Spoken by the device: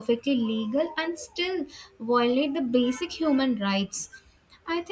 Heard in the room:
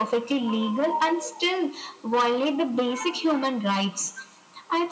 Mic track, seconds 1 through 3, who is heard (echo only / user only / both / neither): echo only